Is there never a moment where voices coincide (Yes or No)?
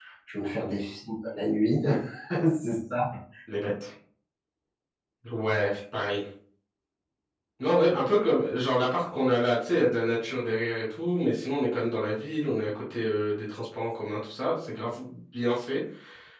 Yes